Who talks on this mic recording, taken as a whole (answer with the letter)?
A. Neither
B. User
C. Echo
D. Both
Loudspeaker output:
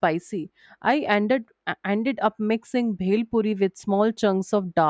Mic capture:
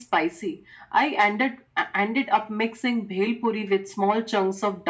C